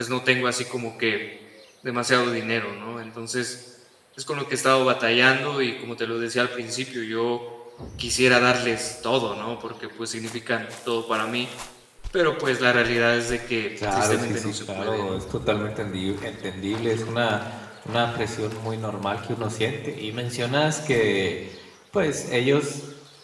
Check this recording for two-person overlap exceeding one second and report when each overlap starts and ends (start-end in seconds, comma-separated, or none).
13.9-15.2